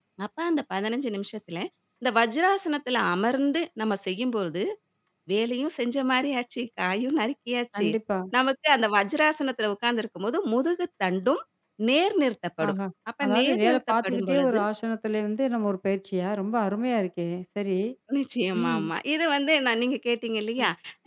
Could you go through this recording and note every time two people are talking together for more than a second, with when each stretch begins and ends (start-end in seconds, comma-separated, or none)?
13.2-14.6